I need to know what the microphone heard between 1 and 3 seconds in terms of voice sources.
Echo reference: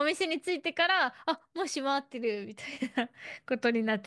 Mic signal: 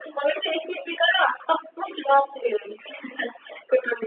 echo only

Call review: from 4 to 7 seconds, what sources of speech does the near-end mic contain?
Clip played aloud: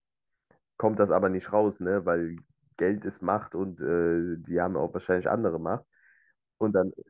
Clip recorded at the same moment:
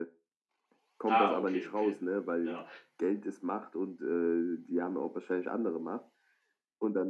echo only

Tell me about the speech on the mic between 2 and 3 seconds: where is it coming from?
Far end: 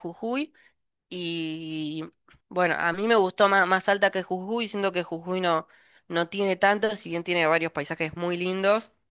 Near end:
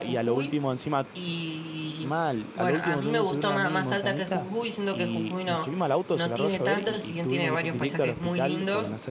both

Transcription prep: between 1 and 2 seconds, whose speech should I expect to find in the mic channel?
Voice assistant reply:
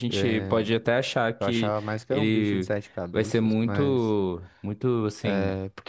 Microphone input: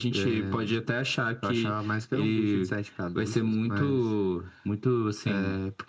echo only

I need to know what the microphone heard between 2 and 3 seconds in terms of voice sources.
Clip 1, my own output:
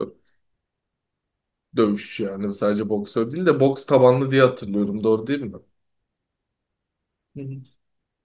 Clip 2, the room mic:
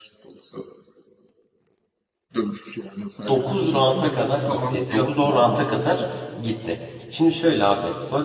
echo only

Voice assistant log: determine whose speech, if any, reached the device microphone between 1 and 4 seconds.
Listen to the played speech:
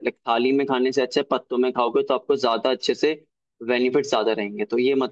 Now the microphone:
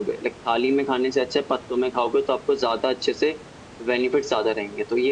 echo only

